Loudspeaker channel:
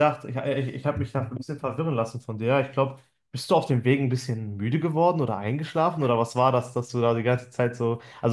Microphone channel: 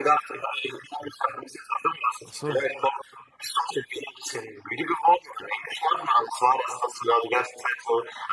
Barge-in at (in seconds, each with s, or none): 2.2 s